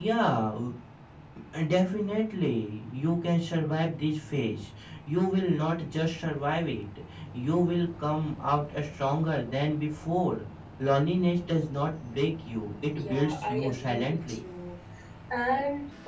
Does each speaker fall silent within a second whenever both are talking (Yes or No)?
No